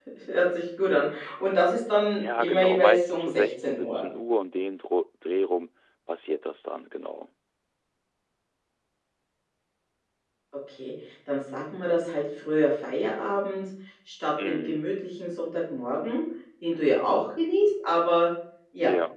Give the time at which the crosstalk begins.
2.2 s

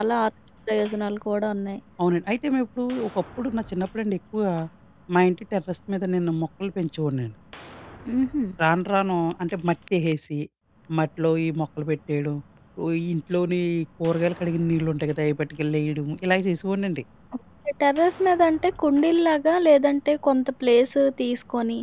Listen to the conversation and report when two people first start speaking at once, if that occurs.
none

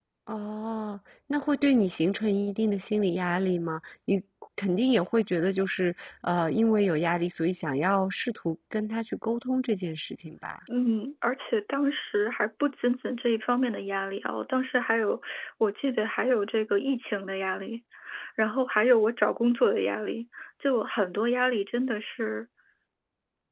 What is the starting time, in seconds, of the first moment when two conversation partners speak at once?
none

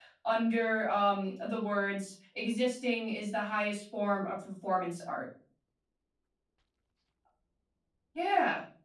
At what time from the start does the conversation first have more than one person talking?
none

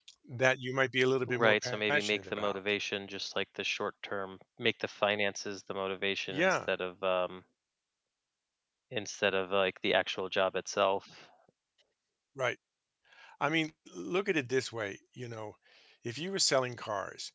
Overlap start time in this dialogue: 1.3 s

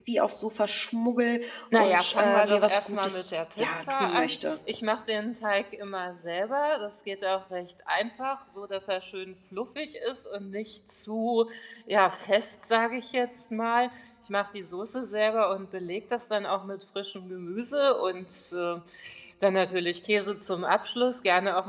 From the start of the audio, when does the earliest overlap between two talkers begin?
1.7 s

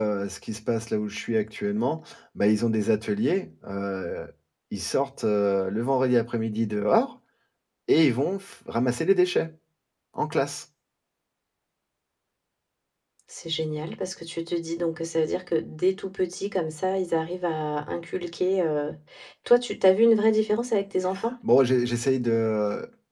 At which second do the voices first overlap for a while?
none

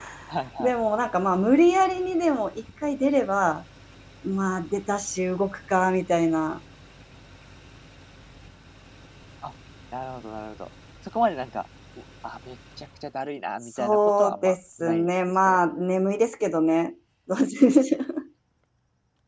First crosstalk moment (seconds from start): 13.8 s

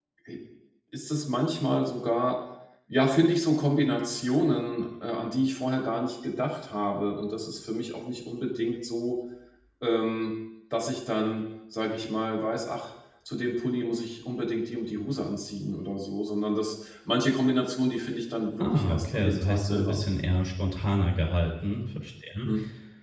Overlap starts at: 18.6 s

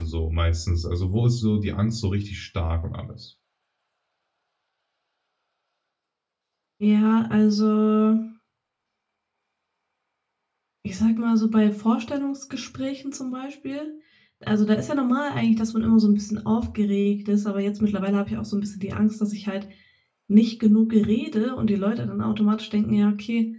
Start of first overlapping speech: none

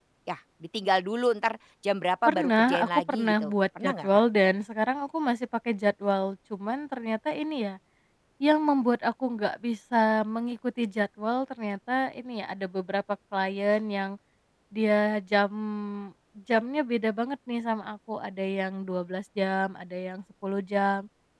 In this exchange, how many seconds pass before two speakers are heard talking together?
2.2 s

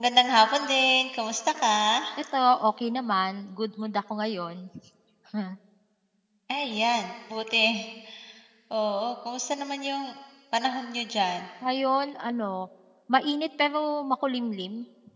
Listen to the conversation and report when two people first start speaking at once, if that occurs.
none

